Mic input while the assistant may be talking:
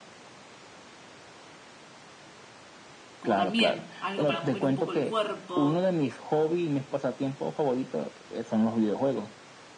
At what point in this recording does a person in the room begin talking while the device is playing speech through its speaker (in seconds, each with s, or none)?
3.2 s